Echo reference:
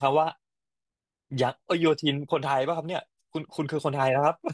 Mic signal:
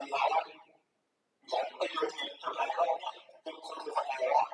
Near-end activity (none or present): none